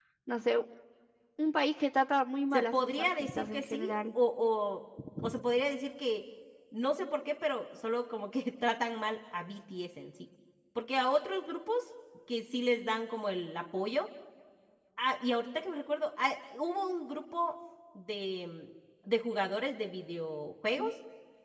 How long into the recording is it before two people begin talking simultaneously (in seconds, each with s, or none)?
2.5 s